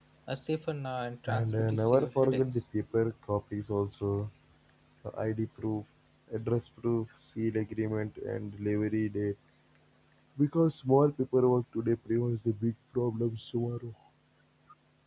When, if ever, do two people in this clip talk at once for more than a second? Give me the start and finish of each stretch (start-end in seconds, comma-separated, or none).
1.3-2.6